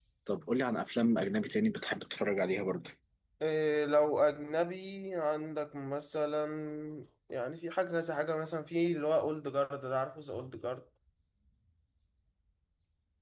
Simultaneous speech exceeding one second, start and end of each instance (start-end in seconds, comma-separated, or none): none